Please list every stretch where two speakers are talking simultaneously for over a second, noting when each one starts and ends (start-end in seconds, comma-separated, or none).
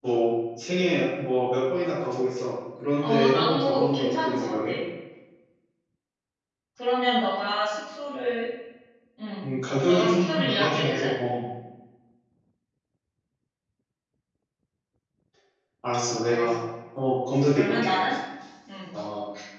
3.0-4.7, 9.9-11.1